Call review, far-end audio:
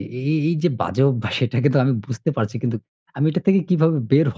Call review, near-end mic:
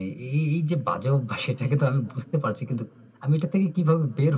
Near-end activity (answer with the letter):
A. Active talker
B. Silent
B